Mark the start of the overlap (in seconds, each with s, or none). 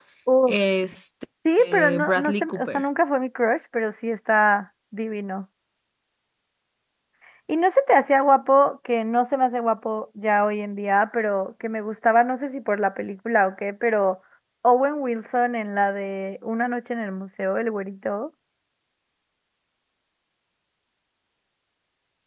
1.4 s